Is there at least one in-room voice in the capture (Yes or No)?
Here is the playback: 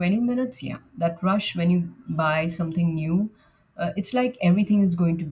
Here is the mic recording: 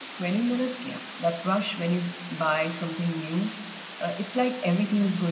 No